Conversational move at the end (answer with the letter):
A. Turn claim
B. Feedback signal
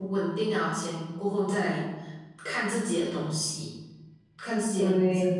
B